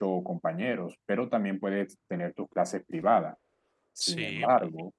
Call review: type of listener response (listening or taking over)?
listening